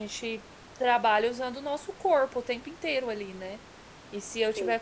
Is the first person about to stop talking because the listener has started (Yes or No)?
No